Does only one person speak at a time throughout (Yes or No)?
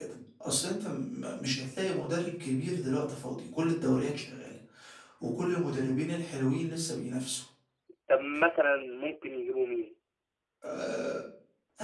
Yes